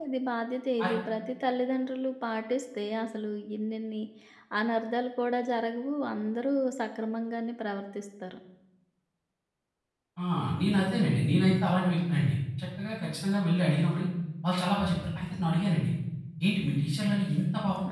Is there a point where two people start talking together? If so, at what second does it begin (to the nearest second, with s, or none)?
none